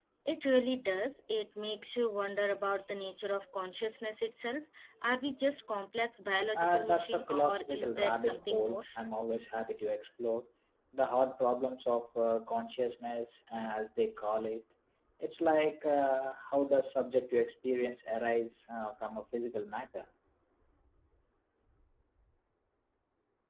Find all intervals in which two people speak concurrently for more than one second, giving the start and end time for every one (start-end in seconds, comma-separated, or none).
6.5-8.8